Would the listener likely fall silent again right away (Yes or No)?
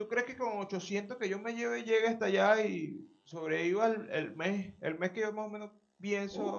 No